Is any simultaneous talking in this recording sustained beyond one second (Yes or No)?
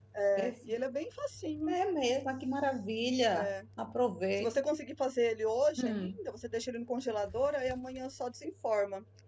No